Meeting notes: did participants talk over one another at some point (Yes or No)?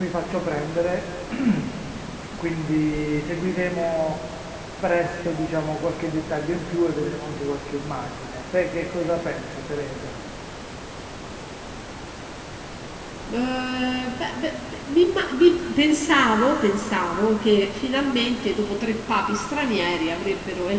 No